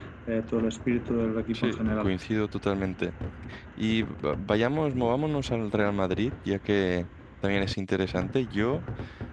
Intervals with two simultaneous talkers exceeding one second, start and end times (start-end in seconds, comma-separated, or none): none